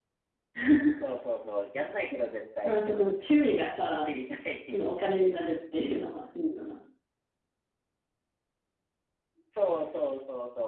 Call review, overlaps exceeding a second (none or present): none